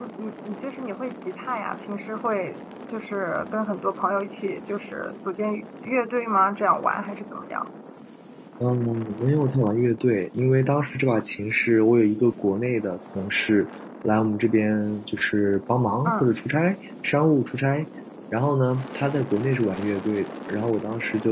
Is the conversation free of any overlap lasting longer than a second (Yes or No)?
Yes